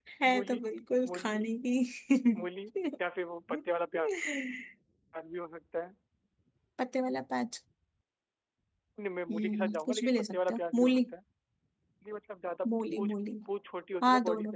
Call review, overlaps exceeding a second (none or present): present